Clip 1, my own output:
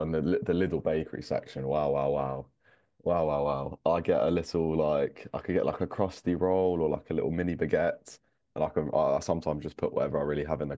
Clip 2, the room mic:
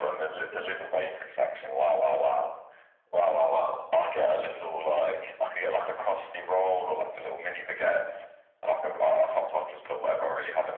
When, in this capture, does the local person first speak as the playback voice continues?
none

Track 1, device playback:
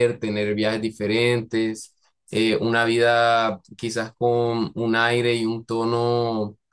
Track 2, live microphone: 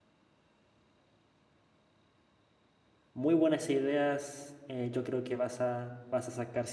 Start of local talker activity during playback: 3.1 s

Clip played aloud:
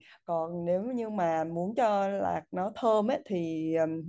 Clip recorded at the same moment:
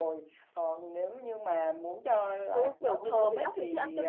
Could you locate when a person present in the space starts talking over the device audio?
2.5 s

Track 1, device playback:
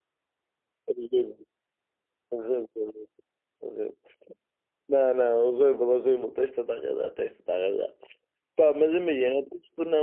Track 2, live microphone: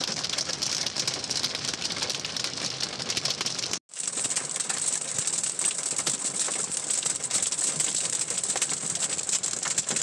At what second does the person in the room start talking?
none

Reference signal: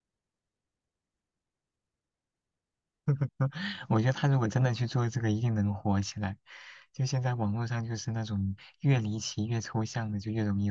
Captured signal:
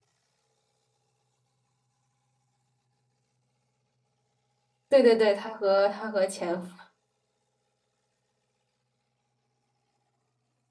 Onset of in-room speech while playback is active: 4.9 s

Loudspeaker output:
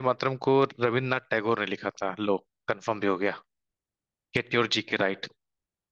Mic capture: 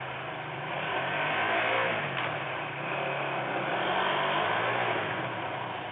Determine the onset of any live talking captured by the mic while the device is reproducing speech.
none

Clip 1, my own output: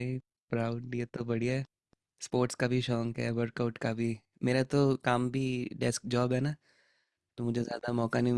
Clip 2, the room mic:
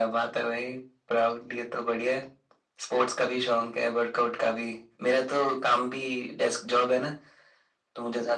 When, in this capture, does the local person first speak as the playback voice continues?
none

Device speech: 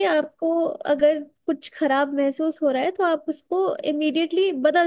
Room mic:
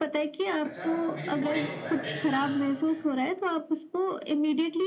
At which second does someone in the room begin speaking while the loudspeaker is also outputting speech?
0.7 s

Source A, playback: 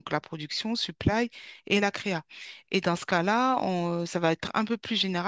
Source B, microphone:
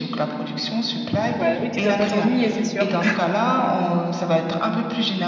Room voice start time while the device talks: 1.4 s

